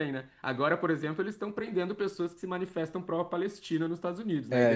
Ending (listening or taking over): taking over